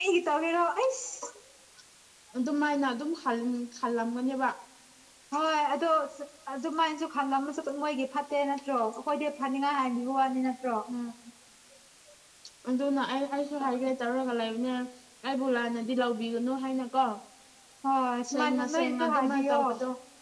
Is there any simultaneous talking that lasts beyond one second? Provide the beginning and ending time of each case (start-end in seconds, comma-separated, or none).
18.3-19.6